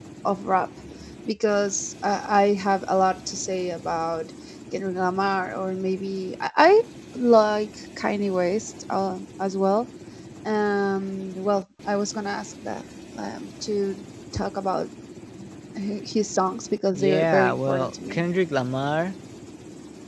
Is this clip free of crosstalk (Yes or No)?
No